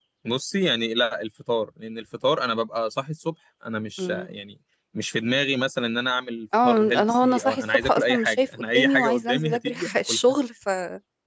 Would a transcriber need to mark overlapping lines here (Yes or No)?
Yes